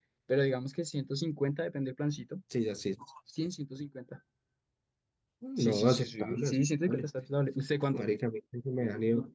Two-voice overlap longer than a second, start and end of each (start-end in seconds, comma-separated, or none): 5.6-7.0